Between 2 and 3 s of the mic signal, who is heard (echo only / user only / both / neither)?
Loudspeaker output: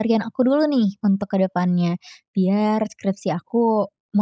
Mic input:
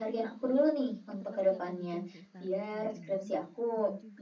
both